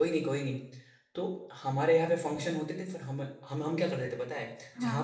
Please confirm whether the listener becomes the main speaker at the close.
No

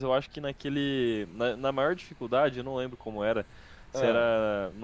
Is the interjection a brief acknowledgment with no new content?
Yes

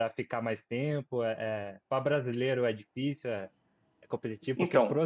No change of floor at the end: Yes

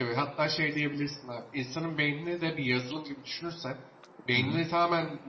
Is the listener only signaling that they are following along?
Yes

